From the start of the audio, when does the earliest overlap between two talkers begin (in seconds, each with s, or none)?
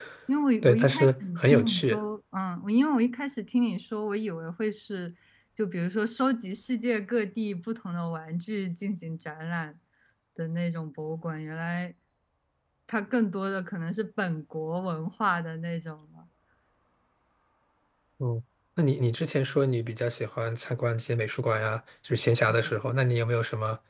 0.6 s